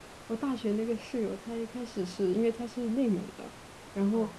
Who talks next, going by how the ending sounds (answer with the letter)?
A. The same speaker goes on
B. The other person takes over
A